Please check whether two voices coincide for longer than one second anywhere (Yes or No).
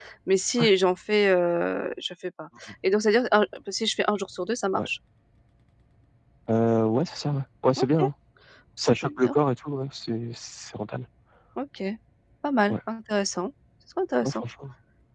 No